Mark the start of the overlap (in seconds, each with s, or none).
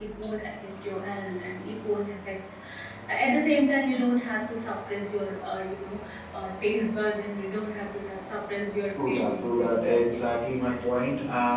9.0 s